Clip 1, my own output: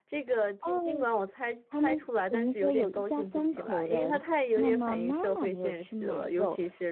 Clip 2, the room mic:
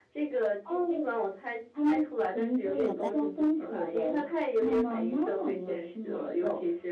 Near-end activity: present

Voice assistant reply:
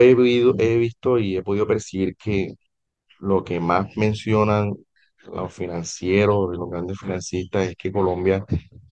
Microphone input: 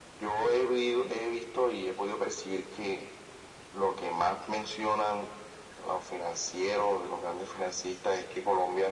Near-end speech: none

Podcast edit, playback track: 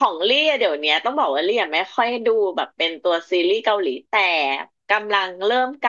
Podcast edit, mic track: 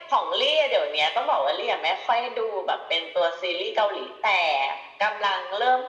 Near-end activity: none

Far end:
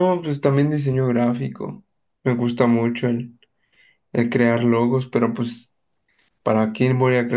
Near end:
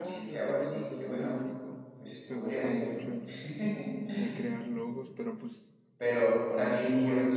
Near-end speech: present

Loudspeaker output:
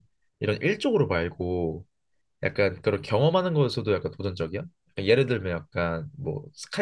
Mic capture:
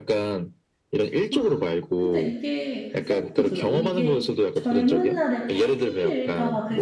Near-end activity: present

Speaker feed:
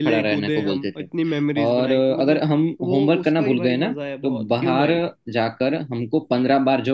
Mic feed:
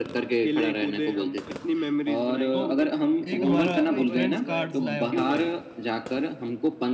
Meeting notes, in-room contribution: present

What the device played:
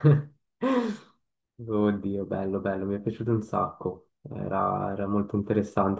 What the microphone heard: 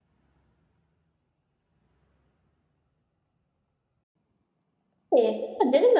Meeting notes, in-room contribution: present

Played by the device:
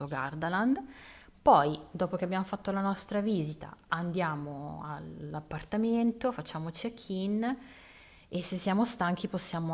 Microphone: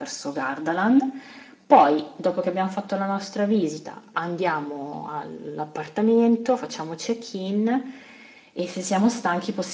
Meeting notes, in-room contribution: none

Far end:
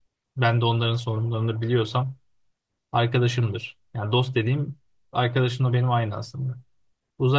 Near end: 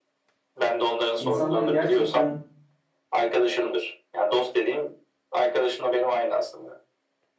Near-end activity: present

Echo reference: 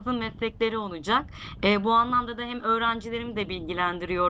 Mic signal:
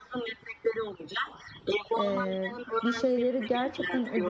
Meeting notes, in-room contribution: present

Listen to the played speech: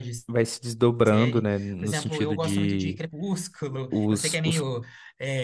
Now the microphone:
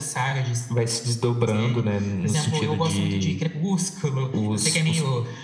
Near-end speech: none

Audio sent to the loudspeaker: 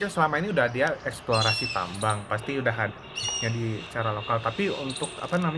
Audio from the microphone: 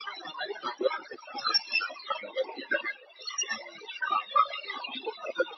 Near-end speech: none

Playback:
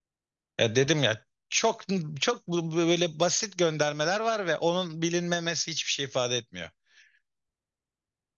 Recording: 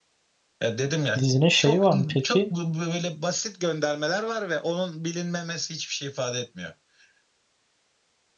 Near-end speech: present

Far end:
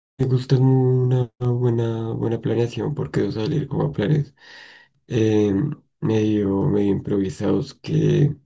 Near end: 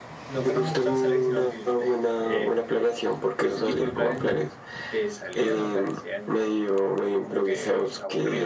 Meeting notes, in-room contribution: present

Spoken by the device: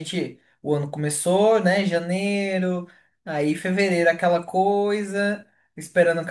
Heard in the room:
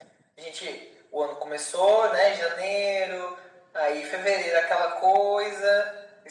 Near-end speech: none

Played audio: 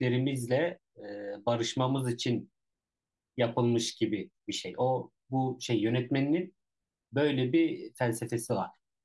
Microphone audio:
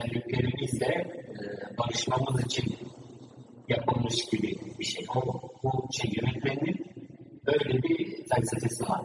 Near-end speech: none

